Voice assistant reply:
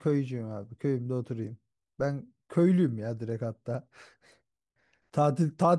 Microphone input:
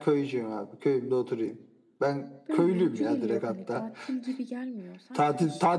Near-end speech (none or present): present